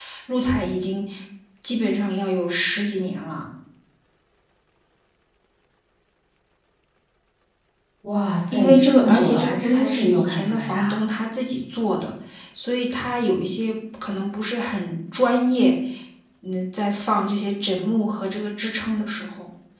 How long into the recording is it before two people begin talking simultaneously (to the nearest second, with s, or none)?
9 s